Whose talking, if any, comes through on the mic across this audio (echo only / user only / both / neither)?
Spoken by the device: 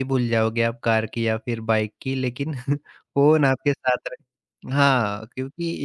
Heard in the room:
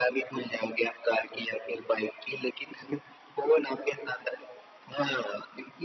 echo only